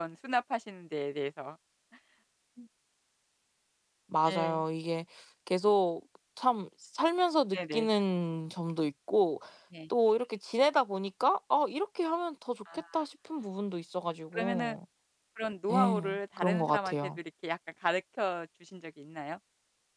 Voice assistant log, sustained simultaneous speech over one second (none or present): present